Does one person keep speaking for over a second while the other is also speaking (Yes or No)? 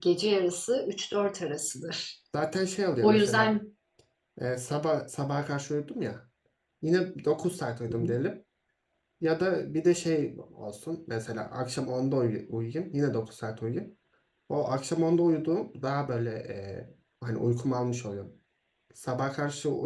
No